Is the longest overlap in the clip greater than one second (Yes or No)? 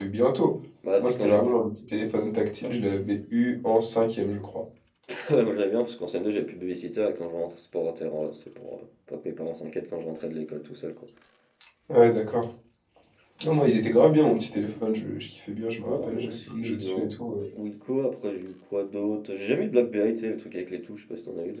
Yes